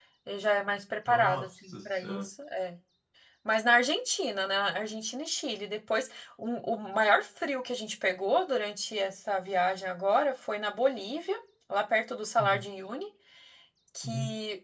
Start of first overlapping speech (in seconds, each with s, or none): 1.1 s